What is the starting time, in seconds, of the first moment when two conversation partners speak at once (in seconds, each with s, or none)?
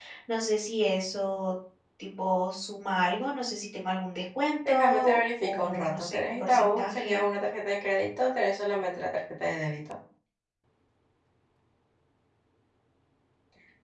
4.7 s